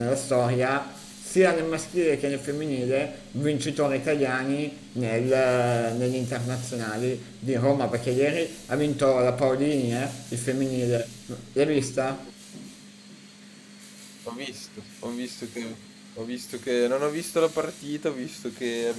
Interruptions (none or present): none